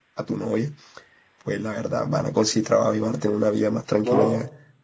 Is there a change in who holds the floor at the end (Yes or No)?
Yes